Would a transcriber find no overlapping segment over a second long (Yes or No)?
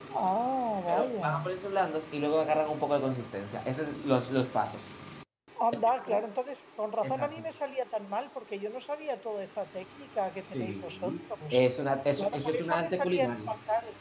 No